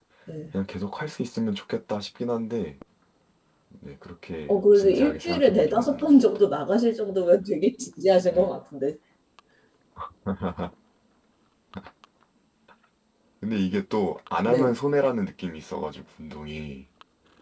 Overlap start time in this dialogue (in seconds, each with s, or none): 4.5 s